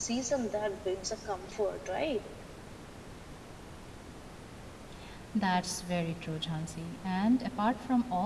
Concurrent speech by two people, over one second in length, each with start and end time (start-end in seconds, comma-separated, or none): none